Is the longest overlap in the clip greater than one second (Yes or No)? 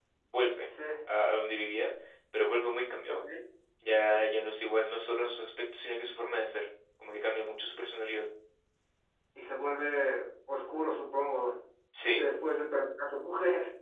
No